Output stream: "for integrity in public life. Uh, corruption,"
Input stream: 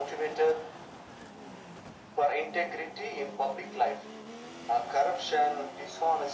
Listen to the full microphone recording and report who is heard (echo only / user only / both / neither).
echo only